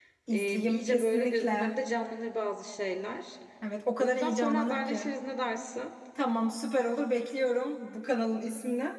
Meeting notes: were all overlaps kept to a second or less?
No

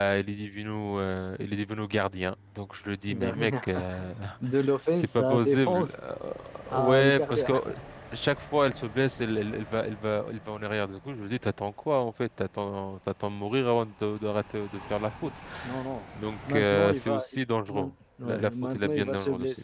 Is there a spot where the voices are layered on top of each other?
Yes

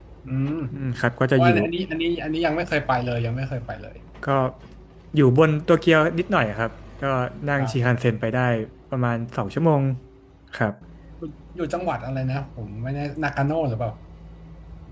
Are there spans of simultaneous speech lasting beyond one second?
No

